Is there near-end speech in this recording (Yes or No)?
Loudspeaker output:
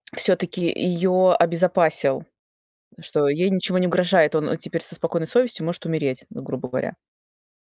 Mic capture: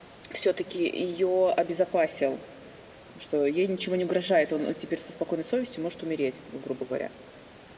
No